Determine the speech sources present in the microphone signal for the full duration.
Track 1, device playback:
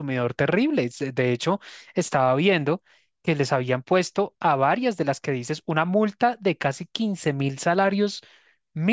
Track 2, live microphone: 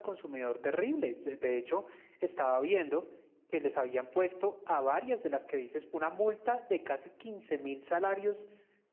echo only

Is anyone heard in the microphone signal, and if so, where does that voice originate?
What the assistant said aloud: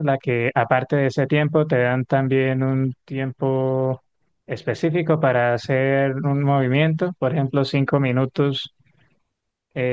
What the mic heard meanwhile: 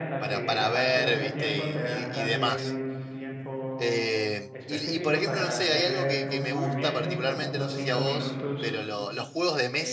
both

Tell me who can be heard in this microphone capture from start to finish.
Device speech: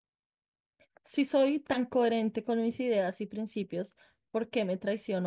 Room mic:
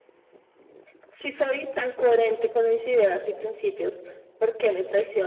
echo only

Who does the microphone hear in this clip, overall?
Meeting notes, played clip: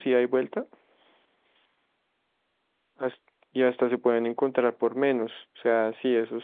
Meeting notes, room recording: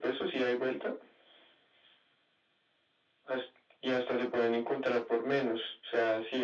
echo only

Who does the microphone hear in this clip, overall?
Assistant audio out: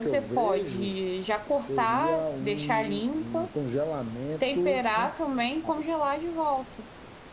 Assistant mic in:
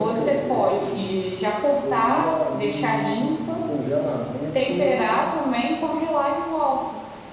echo only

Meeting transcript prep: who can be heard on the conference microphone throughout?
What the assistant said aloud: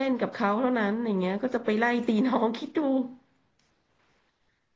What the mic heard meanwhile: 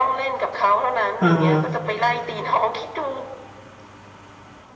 both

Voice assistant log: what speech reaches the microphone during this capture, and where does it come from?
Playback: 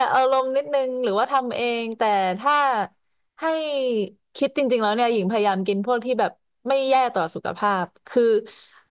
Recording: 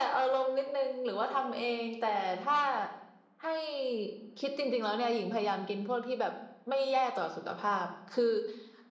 echo only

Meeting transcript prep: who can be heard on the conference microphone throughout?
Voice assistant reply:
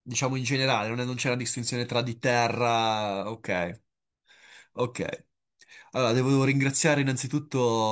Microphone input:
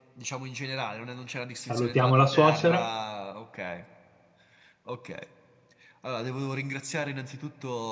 both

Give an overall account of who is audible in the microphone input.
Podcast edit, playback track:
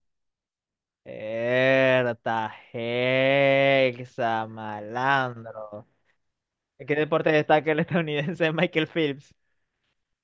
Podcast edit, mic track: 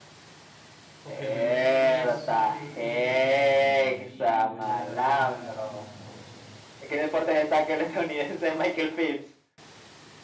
both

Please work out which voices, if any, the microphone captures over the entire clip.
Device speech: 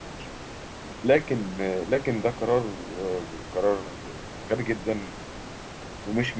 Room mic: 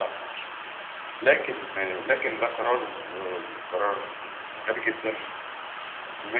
echo only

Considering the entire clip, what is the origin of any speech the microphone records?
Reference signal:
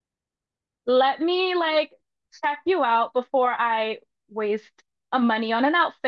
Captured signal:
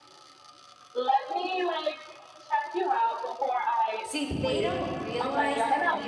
both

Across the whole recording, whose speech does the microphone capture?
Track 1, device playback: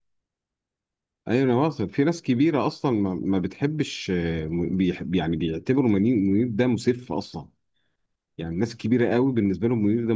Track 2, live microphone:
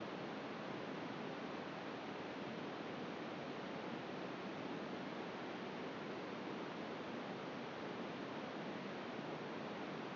neither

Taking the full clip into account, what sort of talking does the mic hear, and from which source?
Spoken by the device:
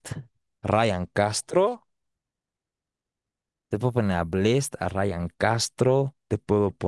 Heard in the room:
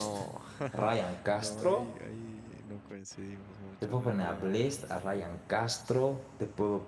both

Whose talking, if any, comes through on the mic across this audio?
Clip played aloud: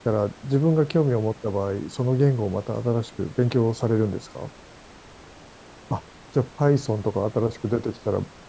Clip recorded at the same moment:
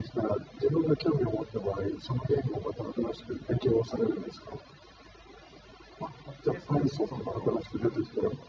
both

